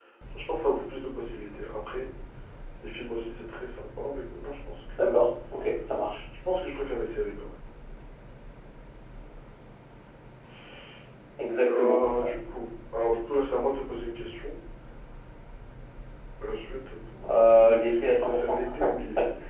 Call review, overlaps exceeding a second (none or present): present